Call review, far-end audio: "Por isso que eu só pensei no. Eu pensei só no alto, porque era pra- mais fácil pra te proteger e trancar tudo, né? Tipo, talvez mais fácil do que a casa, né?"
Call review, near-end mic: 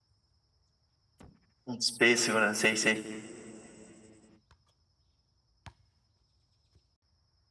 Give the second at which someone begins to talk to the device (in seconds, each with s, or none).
1.7 s